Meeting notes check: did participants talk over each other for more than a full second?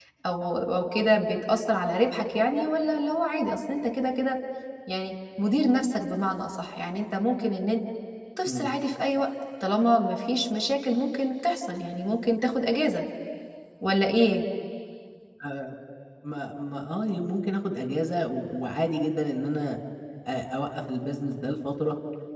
No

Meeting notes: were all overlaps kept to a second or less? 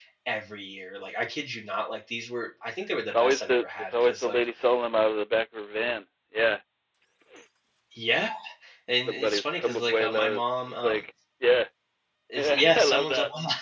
No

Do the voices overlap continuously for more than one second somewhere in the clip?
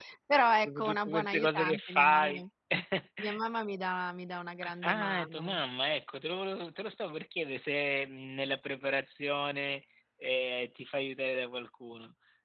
Yes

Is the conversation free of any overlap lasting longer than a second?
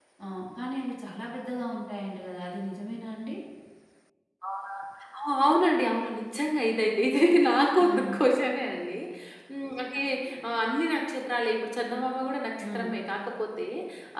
Yes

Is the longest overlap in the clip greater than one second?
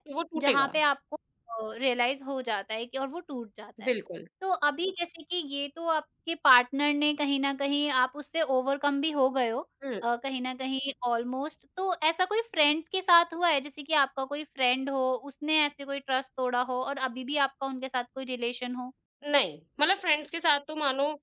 No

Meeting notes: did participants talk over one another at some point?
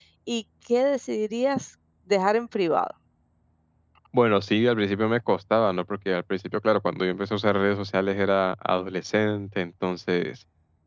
No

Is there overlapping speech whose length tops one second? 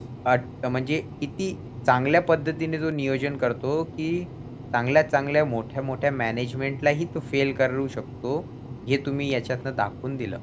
No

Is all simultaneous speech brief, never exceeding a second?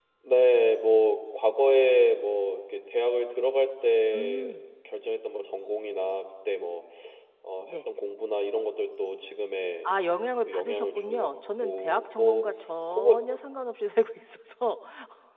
No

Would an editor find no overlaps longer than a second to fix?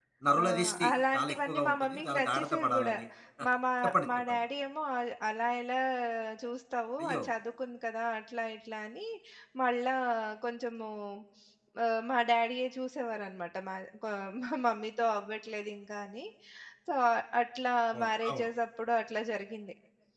No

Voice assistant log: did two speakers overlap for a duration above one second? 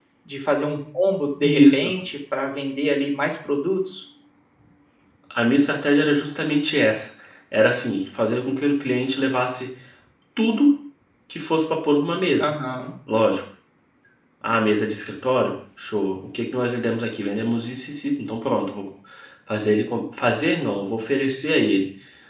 No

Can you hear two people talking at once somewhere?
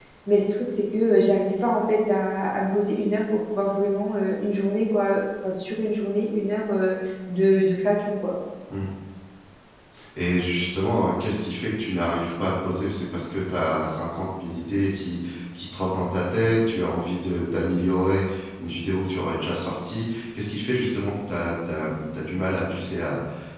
No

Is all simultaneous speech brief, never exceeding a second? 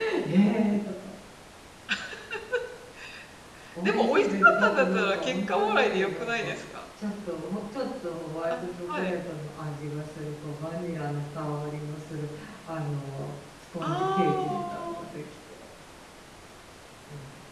No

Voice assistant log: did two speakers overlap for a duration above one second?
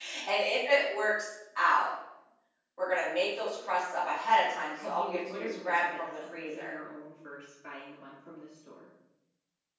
Yes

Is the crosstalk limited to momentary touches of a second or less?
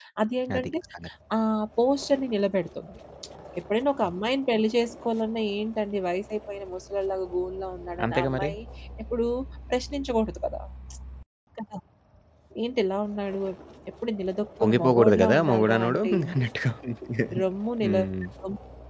No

